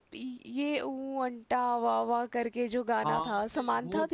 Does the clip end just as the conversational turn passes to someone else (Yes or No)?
Yes